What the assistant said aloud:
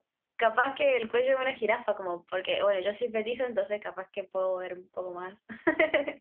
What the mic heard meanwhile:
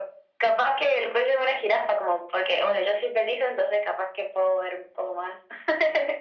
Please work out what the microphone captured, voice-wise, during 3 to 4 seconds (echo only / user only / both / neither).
echo only